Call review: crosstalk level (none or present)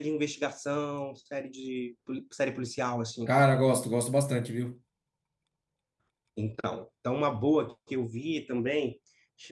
none